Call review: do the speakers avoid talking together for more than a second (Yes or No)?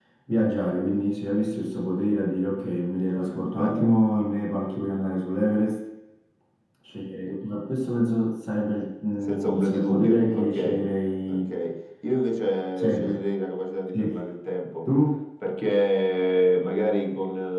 No